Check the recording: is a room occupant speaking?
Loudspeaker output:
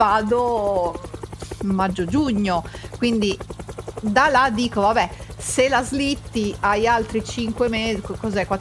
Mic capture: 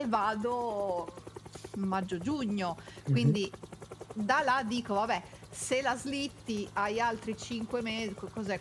Yes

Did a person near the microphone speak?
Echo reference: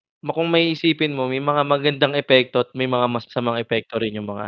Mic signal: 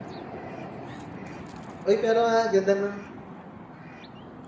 Yes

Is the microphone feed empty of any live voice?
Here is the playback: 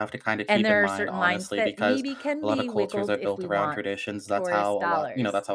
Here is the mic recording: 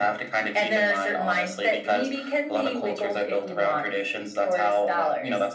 Yes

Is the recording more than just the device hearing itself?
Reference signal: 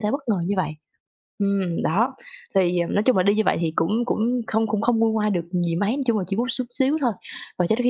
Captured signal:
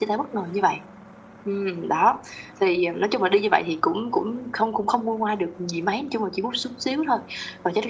No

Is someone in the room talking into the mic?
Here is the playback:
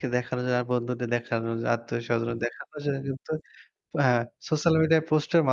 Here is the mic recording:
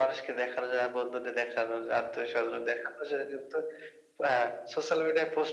No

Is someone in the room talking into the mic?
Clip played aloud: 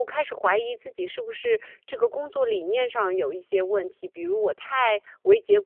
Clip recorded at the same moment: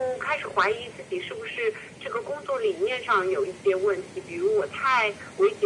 No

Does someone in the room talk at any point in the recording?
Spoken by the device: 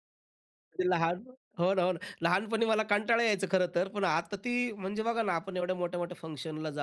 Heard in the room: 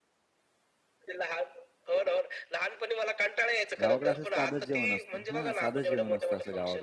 Yes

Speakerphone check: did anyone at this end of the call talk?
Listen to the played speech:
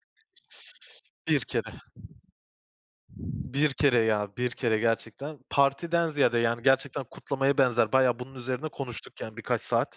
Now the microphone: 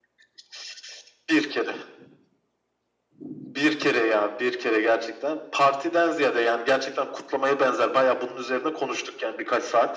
No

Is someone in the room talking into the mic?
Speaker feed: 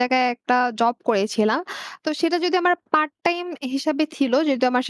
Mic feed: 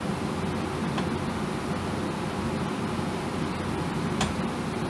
No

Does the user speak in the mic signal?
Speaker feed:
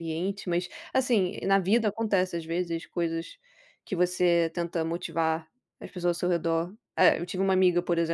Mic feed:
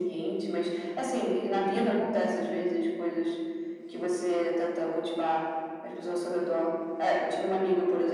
Yes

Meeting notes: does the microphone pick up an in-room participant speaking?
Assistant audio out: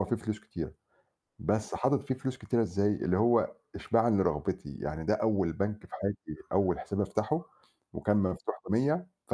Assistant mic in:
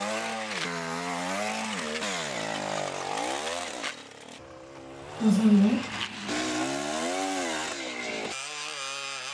Yes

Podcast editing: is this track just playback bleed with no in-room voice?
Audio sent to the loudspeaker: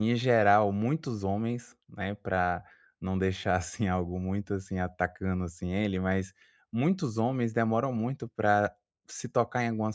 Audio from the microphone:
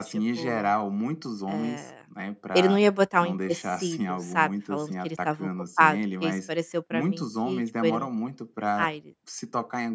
No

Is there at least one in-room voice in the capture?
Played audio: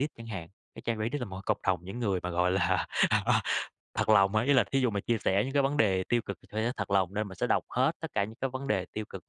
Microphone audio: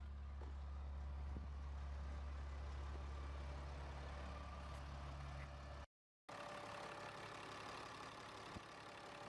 No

